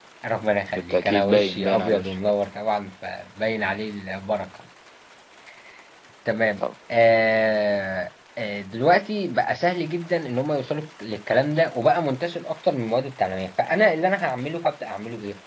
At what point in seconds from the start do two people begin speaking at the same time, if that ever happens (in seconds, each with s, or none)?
0.8 s